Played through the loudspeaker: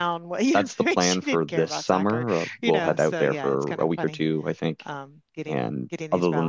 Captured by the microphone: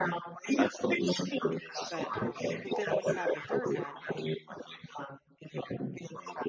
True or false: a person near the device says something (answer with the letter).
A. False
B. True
B